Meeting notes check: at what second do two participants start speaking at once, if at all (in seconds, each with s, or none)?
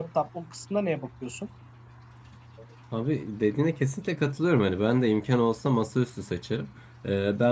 none